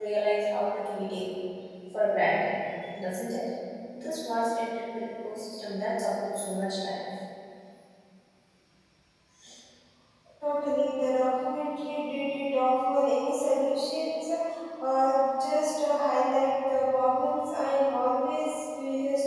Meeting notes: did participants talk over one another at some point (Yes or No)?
No